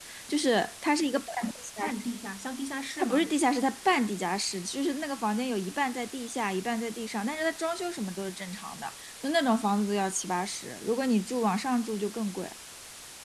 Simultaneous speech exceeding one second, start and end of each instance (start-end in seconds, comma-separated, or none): none